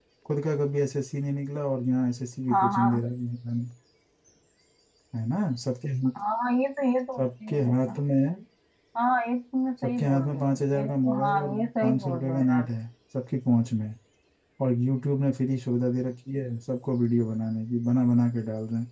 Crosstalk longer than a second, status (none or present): present